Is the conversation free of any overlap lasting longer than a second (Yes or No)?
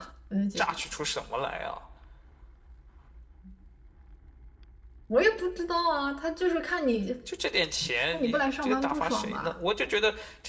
No